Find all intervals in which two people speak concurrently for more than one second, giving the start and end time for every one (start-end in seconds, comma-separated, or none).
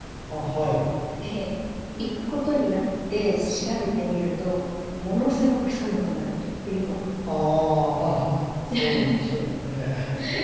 none